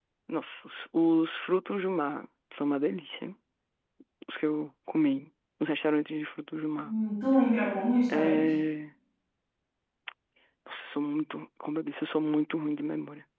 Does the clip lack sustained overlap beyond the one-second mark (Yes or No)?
Yes